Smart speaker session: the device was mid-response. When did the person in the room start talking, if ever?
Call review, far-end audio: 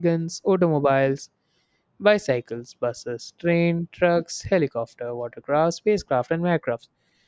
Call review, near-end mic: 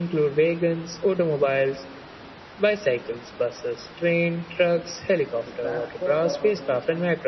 5 s

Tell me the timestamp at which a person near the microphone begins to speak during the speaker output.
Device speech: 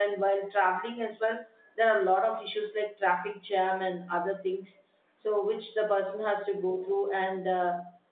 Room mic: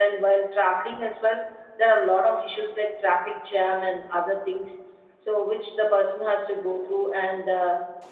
none

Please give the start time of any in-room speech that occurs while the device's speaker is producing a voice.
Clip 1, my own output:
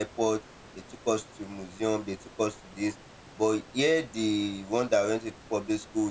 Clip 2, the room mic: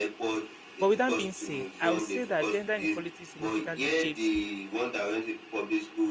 1 s

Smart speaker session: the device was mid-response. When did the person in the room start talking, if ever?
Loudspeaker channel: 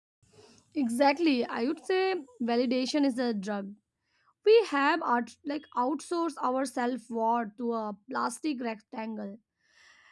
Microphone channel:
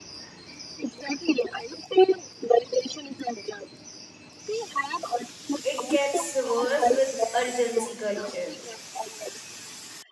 6 s

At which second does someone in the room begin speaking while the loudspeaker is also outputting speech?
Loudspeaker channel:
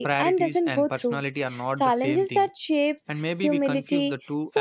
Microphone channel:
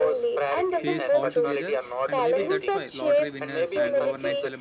1 s

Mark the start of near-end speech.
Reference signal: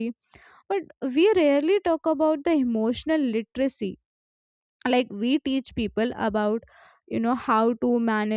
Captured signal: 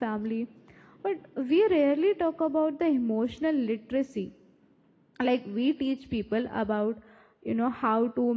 none

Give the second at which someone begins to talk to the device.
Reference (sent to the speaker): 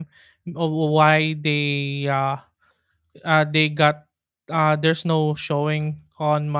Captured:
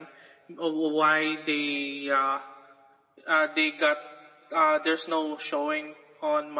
none

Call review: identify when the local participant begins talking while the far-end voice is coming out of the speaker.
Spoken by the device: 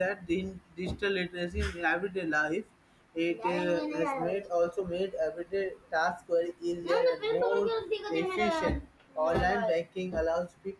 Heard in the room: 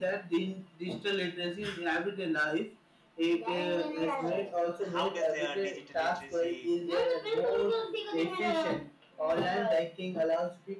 4 s

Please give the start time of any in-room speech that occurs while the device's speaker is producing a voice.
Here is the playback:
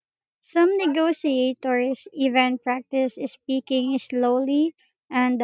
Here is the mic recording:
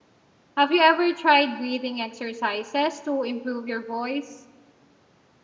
1 s

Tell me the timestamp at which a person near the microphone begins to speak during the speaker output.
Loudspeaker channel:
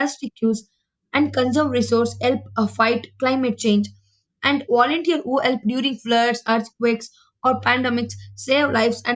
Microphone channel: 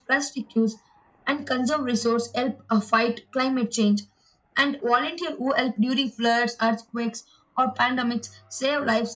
none

